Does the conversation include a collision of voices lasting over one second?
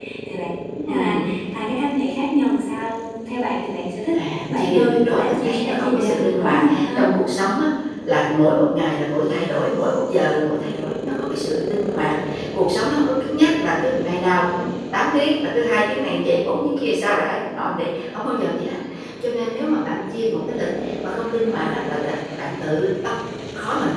Yes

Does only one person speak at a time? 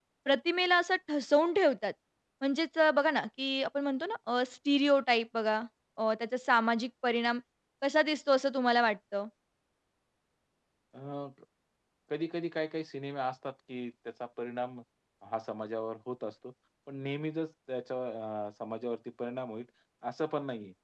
Yes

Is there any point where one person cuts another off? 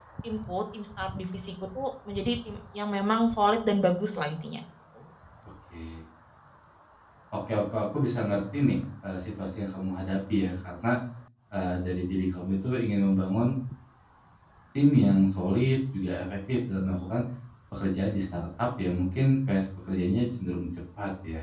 No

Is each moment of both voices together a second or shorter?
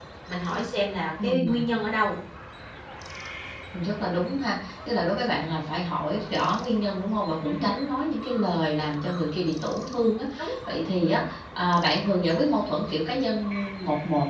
Yes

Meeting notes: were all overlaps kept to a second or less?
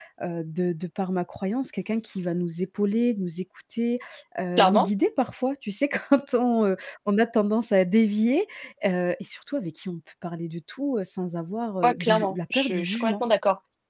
No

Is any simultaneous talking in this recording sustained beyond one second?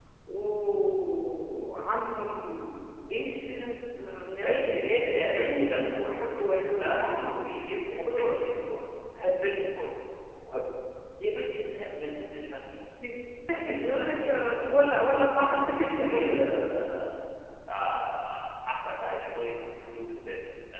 Yes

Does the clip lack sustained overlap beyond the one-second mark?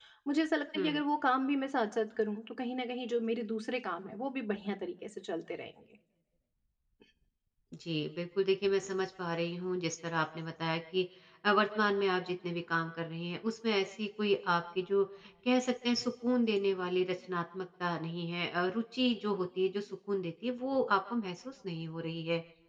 Yes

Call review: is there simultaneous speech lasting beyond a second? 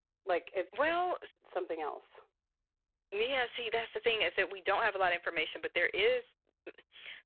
No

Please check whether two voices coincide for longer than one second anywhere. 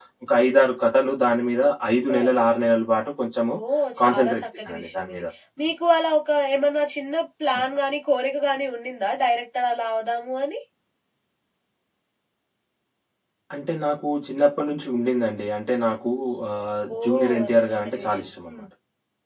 Yes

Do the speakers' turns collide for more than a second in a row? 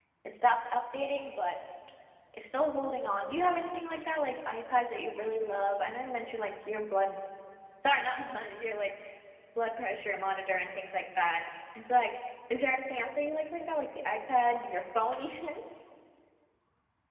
No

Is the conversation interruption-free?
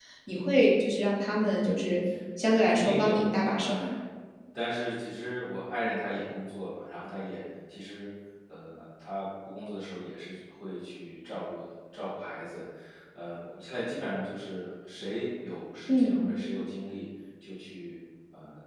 No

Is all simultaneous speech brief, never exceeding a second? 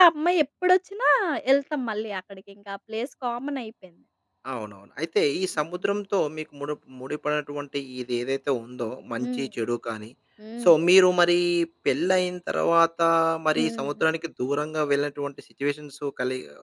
Yes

